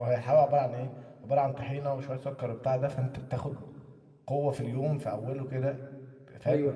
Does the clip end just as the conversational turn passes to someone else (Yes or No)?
Yes